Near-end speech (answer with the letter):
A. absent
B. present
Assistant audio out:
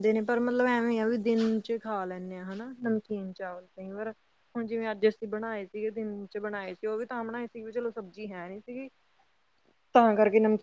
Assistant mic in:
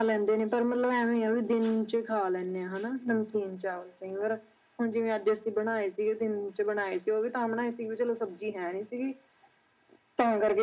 A